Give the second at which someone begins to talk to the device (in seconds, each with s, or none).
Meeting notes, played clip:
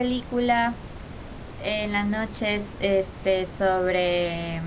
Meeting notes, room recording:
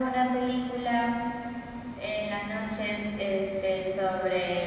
none